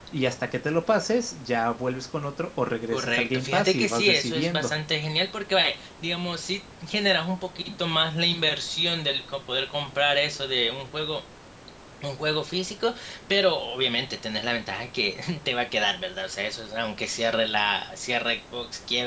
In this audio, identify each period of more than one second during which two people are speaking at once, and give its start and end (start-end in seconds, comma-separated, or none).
2.9-4.7